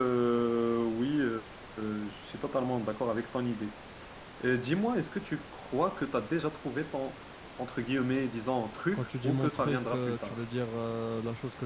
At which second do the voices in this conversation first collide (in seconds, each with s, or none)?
8.9 s